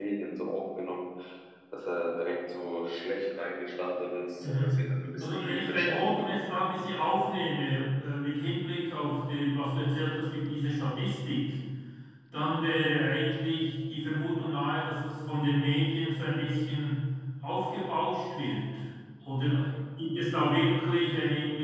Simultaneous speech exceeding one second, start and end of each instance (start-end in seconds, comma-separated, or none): 5.2-6.6